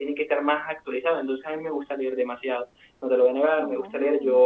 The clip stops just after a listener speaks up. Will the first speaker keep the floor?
Yes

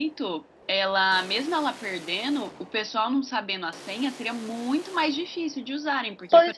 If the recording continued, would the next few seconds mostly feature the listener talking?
Yes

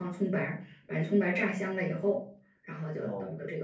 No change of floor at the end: Yes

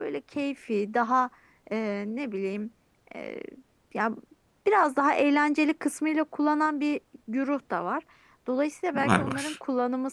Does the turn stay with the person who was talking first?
Yes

